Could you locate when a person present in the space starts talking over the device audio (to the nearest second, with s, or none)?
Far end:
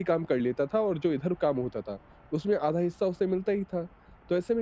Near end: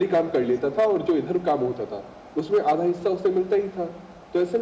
none